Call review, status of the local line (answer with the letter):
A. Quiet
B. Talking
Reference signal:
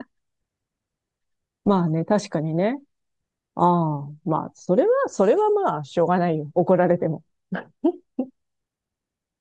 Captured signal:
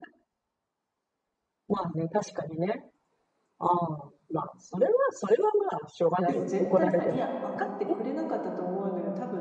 B